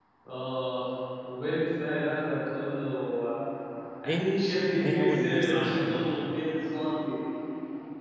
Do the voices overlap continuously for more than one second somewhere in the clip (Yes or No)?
Yes